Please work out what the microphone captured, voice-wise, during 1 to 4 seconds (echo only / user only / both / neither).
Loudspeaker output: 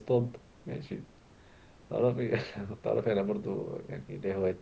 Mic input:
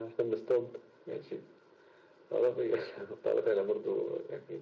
echo only